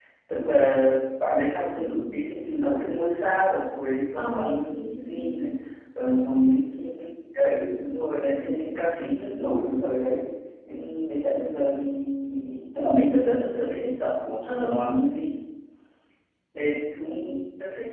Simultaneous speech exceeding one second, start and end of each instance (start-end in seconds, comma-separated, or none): 4.2-5.3